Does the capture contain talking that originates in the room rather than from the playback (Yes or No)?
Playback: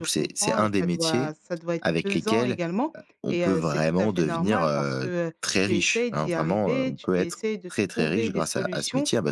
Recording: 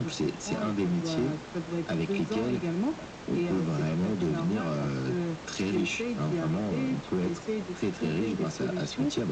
No